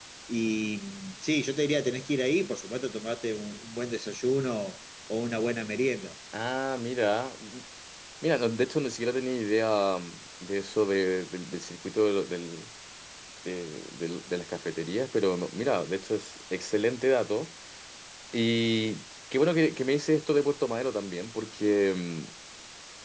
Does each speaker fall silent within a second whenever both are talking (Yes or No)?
Yes